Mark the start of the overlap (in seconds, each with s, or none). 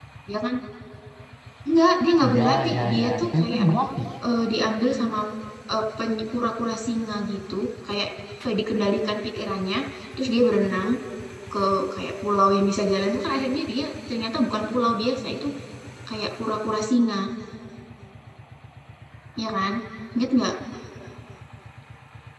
2.2 s